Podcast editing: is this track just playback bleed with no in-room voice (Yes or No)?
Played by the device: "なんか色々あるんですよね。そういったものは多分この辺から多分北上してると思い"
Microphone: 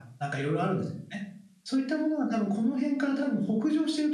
Yes